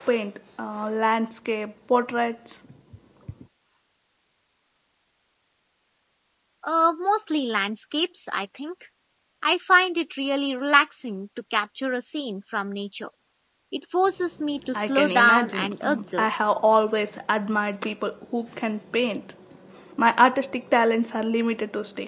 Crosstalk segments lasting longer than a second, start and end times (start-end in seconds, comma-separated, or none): 14.7-16.3